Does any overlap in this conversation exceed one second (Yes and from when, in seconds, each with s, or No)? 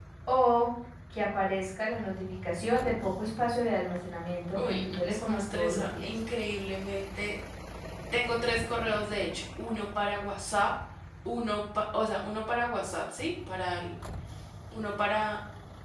Yes, from 4.5 s